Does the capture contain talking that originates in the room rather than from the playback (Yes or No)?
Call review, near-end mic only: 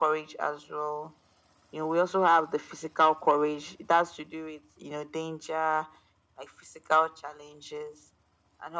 No